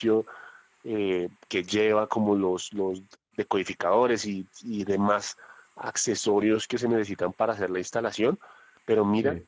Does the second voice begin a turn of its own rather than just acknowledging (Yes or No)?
No